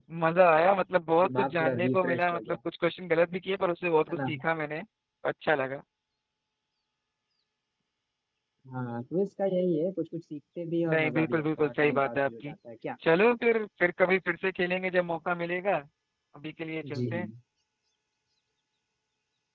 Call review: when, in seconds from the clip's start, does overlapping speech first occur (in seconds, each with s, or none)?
1.2 s